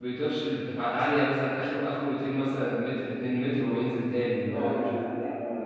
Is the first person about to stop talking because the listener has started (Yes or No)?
Yes